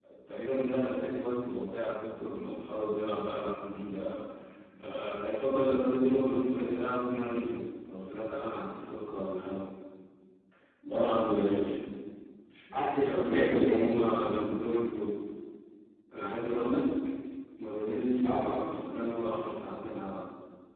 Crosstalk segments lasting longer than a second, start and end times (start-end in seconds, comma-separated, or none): 12.7-14.1